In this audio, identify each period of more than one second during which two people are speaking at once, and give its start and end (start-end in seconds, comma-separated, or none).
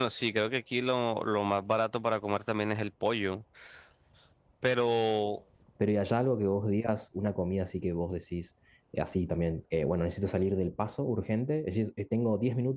none